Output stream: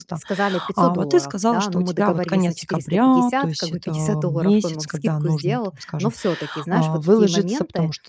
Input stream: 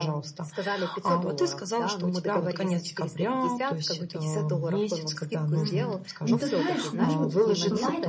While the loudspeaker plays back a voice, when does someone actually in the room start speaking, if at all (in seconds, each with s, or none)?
5.6 s